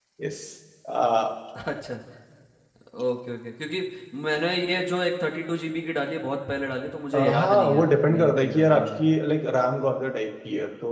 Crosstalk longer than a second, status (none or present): present